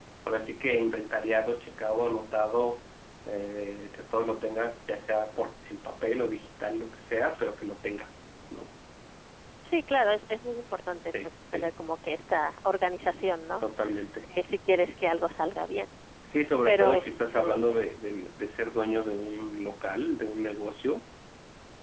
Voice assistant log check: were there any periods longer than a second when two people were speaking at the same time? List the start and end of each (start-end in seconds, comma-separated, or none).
16.6-17.9